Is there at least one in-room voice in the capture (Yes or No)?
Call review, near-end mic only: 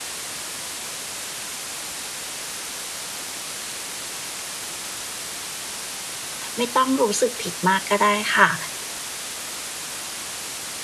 Yes